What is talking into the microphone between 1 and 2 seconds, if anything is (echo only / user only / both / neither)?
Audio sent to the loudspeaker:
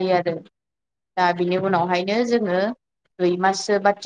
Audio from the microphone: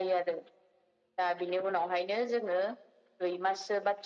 echo only